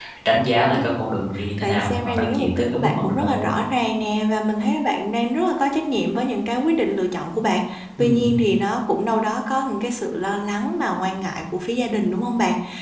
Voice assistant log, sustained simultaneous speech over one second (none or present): present